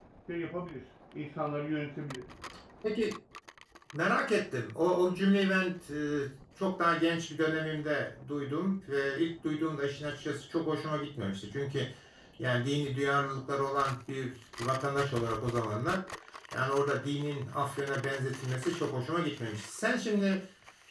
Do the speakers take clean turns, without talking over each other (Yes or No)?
Yes